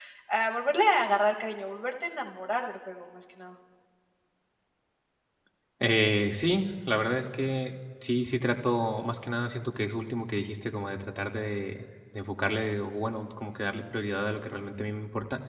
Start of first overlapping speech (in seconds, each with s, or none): none